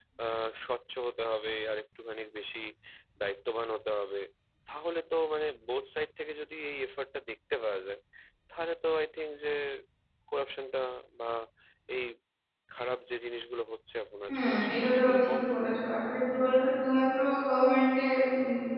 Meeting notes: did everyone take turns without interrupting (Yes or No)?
No